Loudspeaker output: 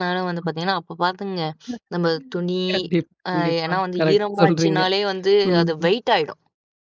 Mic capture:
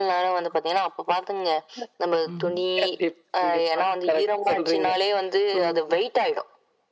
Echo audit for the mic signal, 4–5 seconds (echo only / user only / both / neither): echo only